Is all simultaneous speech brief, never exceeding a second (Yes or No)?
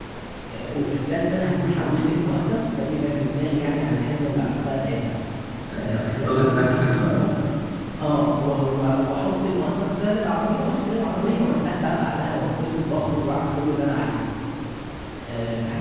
No